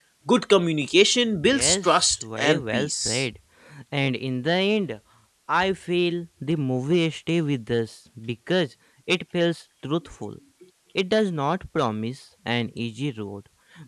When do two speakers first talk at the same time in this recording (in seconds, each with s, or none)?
1.4 s